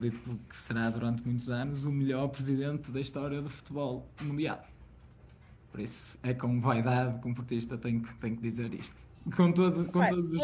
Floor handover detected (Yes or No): Yes